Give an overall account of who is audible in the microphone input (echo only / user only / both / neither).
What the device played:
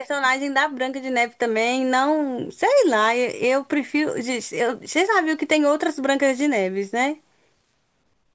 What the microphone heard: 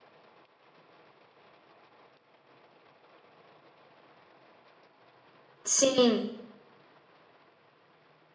user only